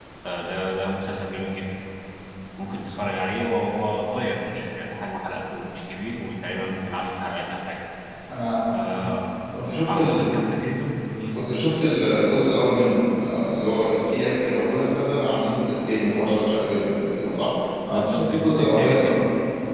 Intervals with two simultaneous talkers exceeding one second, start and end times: 17.9-19.1

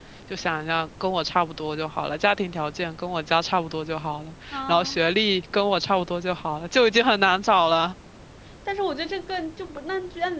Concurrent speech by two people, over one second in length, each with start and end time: none

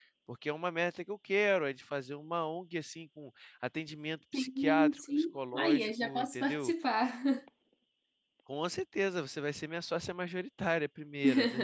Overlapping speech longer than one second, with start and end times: 4.3-6.7

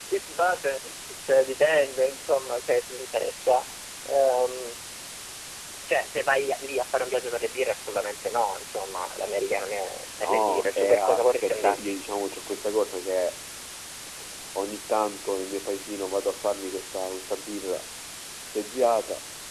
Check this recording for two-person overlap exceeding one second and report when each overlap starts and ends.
10.2-11.9

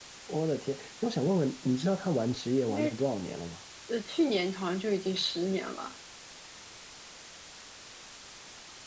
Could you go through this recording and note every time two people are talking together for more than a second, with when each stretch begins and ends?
none

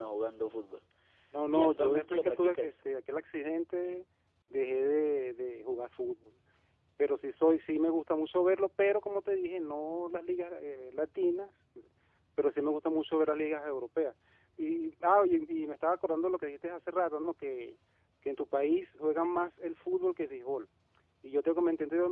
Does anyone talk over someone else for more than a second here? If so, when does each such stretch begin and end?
1.5-2.7

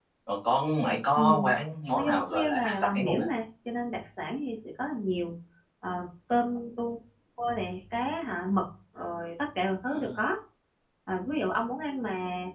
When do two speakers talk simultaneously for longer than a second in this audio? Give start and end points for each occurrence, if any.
2.0-3.2

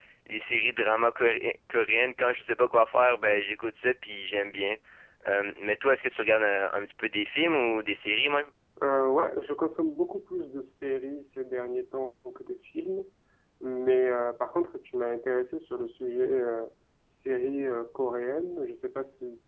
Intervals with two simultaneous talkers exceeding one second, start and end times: none

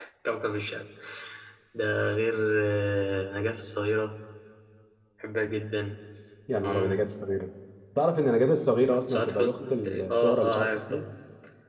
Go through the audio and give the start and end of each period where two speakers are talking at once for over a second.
9.1-11.0

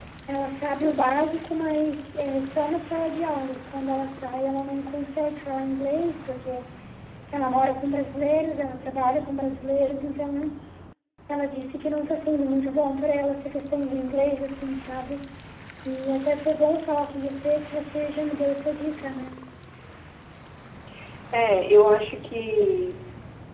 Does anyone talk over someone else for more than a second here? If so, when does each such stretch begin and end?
none

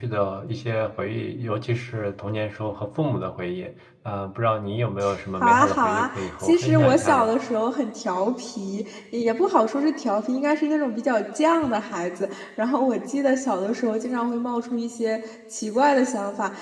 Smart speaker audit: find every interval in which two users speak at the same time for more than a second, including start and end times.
5.4-7.3

